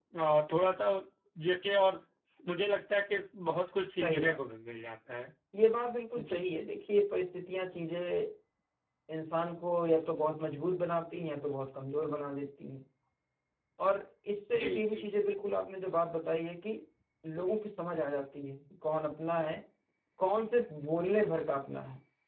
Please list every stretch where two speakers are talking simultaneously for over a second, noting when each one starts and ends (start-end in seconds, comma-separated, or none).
none